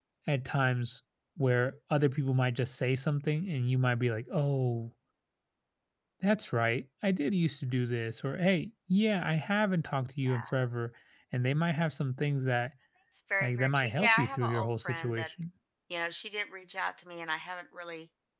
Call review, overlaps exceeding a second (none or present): present